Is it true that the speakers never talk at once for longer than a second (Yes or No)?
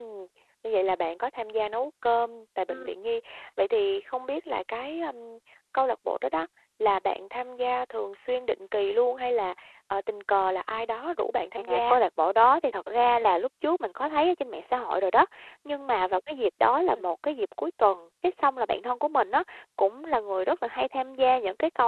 Yes